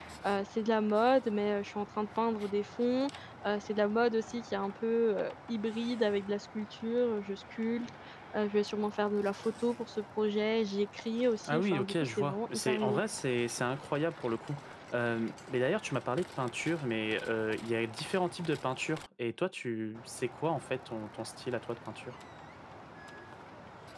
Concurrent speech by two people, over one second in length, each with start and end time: 11.5-13.0

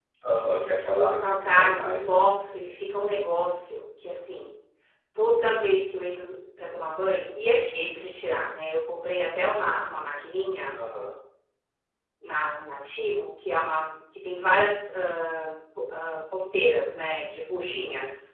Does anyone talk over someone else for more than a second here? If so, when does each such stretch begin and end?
0.8-2.3

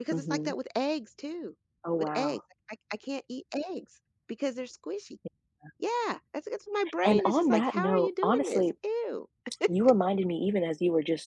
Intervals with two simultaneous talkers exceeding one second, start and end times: 7.0-8.6

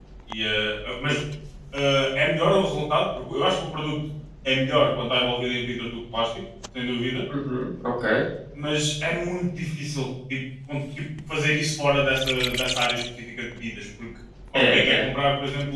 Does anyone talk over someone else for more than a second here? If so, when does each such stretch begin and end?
none

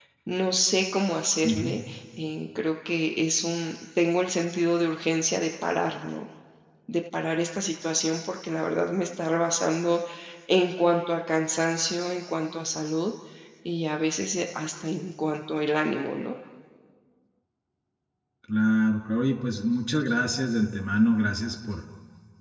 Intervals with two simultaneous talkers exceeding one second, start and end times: none

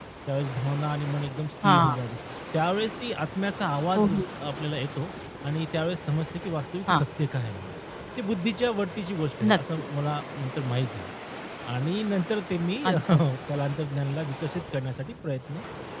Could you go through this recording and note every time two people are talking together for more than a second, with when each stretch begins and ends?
none

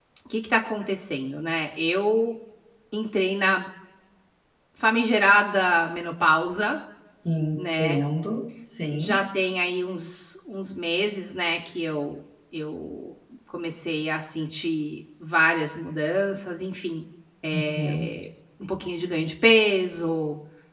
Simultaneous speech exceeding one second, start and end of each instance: none

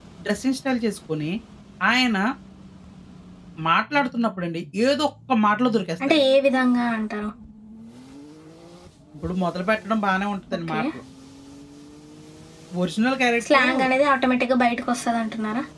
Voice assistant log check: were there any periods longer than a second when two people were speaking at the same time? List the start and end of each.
none

